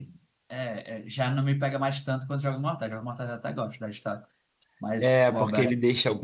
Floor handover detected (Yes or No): Yes